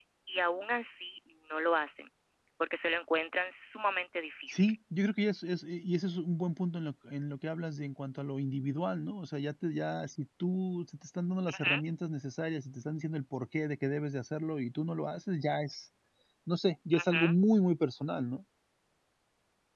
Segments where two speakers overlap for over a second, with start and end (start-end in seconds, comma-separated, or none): none